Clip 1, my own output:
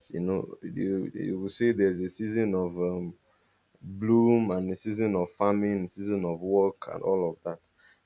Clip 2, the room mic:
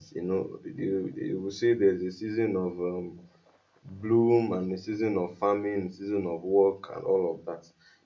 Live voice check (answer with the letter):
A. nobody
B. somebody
A